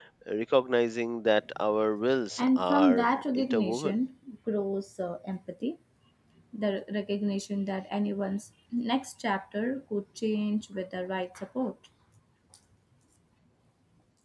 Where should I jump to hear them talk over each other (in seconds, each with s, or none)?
2.4 s